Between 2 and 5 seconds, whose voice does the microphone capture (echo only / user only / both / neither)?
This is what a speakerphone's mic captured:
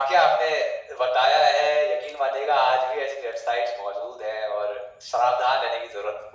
echo only